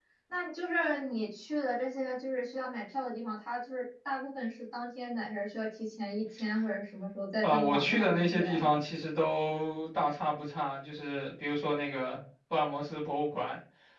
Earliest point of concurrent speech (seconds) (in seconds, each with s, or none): 7.4 s